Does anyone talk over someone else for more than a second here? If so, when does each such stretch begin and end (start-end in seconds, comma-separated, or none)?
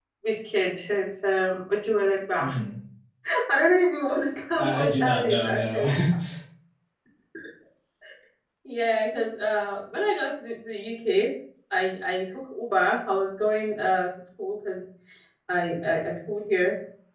4.6-5.9